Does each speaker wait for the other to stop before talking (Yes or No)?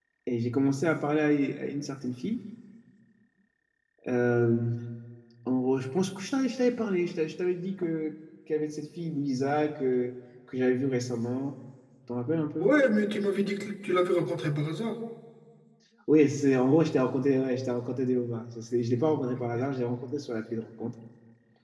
Yes